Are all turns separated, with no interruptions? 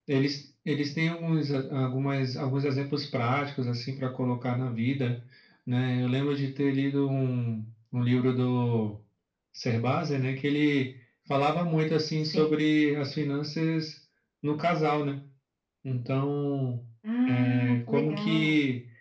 No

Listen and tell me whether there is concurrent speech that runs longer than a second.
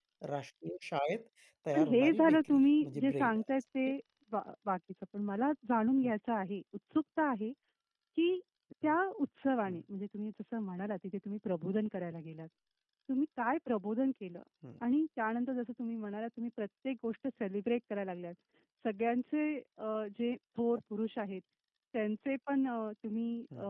Yes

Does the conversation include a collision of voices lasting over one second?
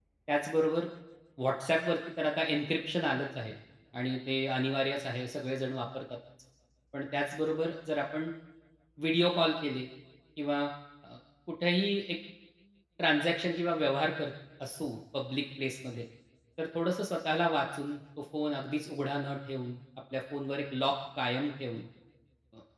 No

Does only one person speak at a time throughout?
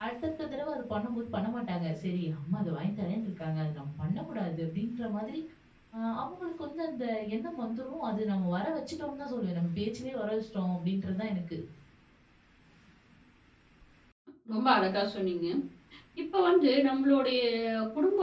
Yes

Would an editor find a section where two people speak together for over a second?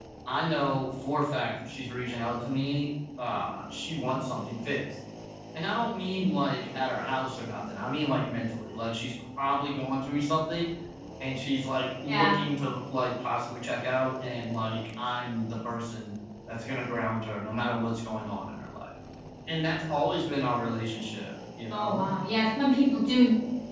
No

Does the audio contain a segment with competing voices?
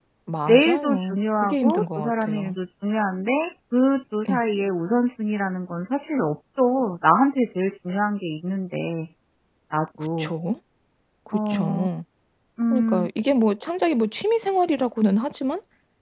Yes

